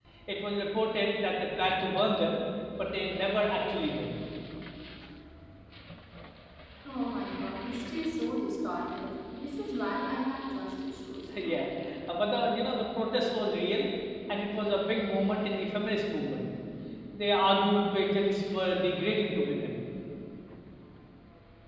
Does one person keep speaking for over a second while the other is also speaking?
No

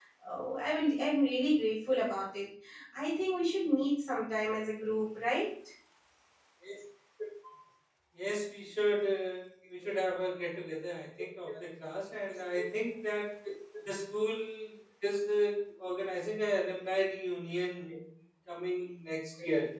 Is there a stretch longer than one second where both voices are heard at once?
No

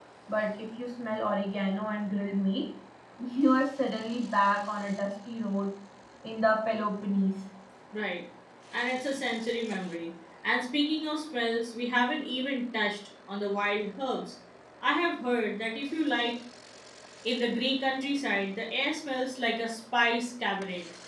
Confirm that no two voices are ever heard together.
Yes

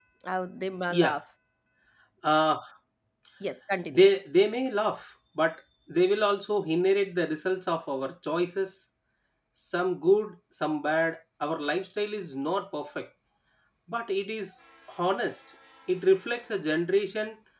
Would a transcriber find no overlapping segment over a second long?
Yes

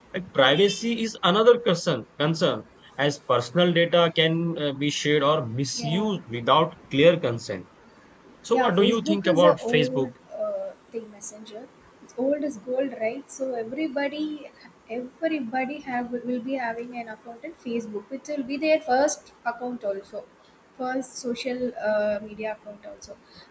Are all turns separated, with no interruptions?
No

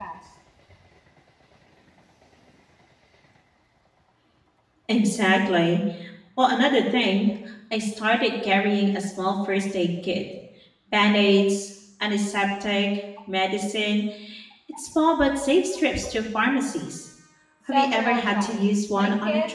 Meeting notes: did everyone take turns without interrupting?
No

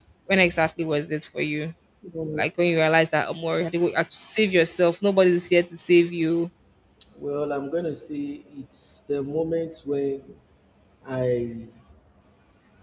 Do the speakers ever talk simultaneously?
No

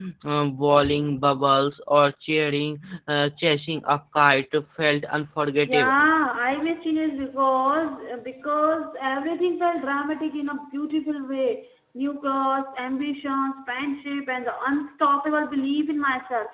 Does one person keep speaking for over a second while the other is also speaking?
No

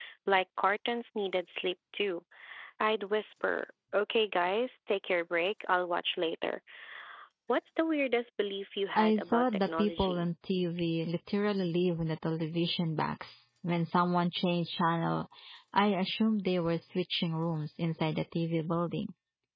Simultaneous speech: Yes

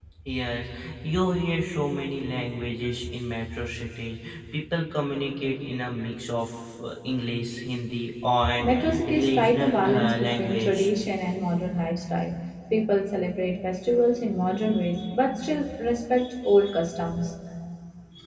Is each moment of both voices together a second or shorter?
No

